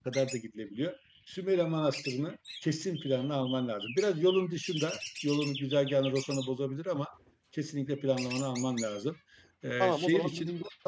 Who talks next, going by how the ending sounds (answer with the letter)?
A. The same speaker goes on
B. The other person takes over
B